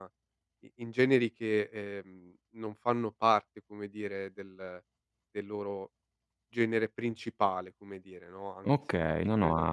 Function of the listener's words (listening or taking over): taking over